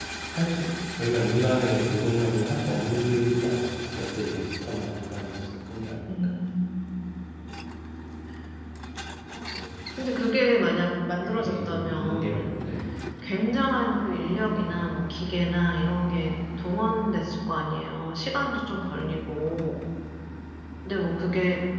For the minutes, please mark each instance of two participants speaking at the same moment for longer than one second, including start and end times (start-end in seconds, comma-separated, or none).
11.3-12.5